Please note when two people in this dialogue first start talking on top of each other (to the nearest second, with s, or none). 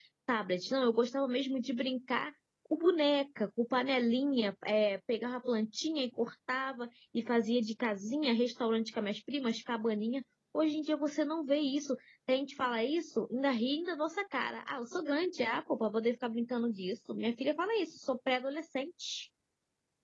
none